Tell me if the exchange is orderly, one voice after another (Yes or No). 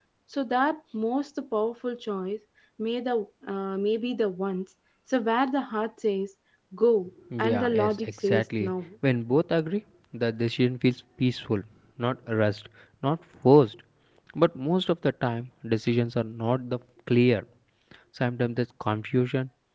No